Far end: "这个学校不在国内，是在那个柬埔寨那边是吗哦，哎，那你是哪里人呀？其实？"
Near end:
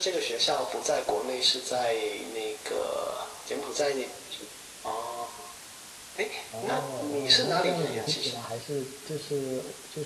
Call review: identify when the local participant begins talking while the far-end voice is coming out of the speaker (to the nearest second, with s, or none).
7 s